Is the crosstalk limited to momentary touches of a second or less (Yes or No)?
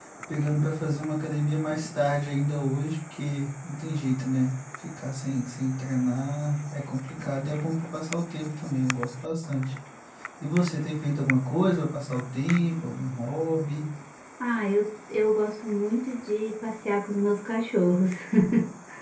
Yes